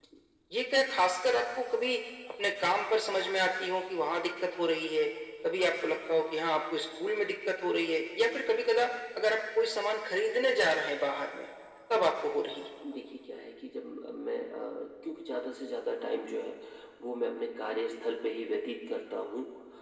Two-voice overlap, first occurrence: none

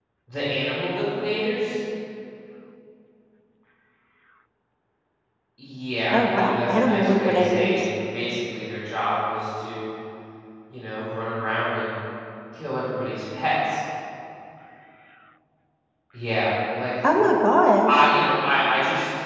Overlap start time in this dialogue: 6 s

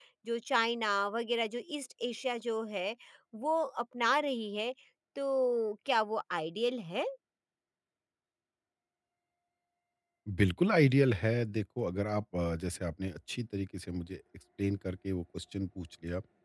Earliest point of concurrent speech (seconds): none

